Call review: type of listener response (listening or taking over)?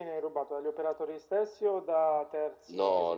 taking over